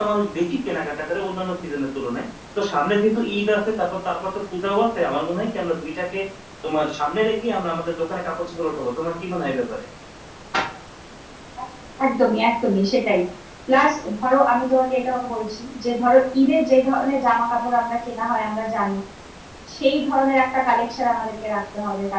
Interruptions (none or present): none